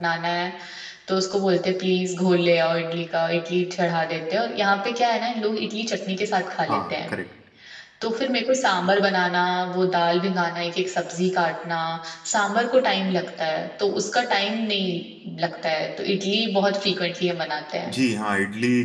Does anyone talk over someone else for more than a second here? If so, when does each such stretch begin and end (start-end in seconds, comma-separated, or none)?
none